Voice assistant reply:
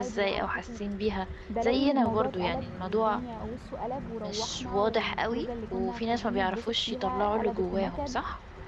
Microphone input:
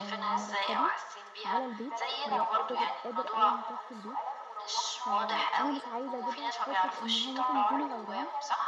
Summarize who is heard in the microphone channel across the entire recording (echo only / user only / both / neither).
both